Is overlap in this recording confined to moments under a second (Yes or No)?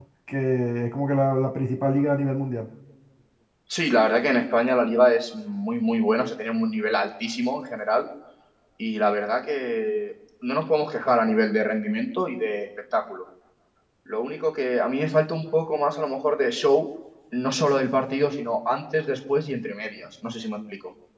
Yes